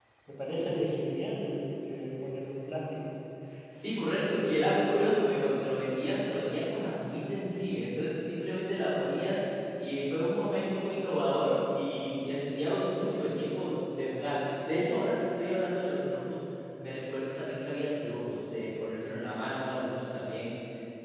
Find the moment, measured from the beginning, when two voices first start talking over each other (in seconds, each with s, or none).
none